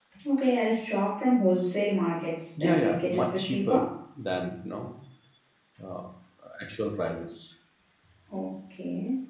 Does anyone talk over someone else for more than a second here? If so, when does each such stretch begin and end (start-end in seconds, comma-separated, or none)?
2.6-3.8